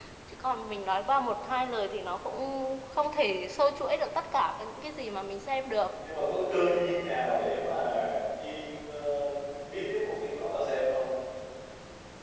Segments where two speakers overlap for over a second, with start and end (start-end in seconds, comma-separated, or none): none